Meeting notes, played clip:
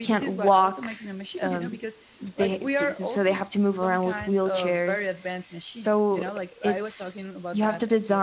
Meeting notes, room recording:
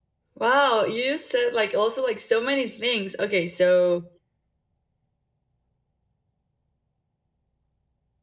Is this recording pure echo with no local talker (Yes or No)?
No